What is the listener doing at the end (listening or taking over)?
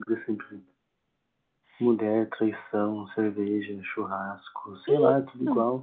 listening